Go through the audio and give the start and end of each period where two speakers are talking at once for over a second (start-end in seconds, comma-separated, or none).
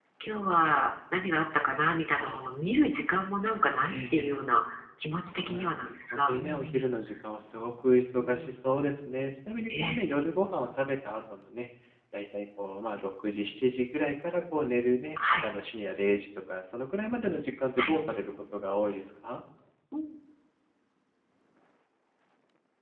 5.3-6.9